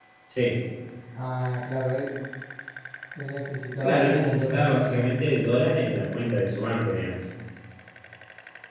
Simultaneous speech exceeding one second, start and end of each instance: 3.8-5.0

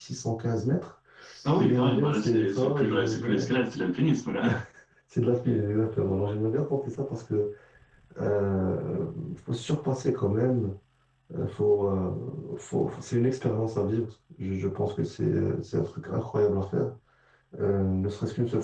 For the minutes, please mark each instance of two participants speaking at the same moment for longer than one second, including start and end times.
1.4-3.3

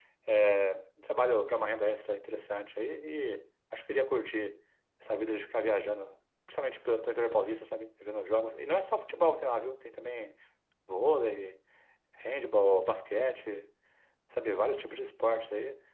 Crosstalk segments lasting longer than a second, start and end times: none

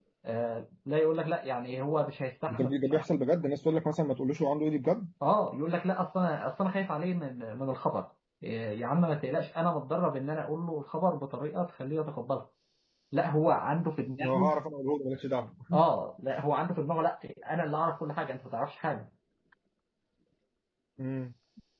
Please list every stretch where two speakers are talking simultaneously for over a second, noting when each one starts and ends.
none

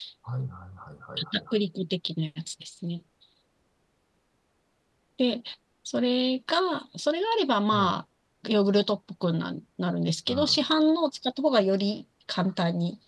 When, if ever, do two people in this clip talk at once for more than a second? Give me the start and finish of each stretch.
none

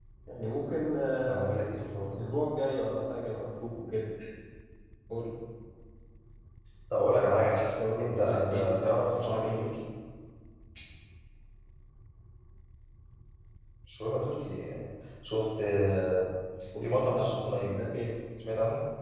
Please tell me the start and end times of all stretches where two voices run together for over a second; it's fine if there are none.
8.0-9.7

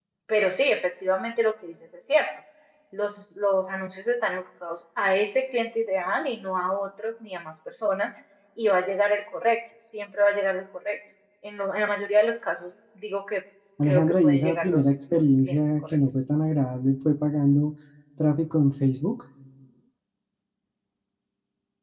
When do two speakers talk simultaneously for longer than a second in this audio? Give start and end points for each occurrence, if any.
13.9-16.0

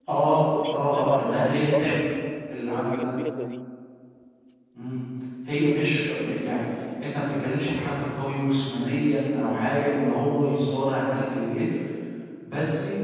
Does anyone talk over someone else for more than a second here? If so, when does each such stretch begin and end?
0.7-2.1

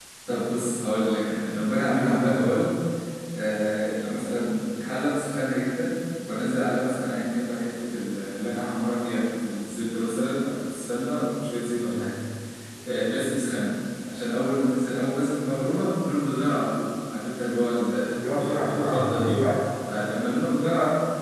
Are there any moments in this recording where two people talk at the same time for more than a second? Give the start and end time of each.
18.2-19.4

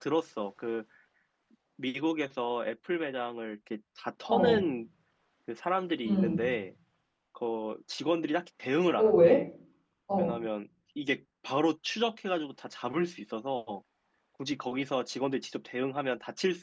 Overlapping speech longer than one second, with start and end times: none

